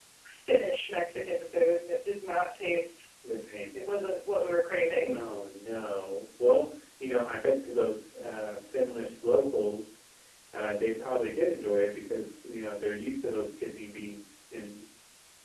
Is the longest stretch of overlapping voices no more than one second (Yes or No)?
Yes